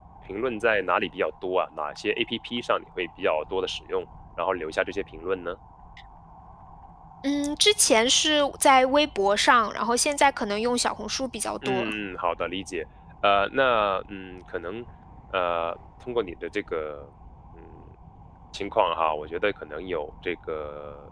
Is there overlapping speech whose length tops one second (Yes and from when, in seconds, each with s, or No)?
No